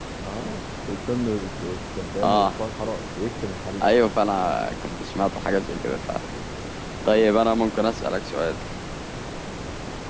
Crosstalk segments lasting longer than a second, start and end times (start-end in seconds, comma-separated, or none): none